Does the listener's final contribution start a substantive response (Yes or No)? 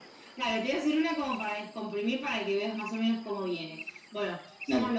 No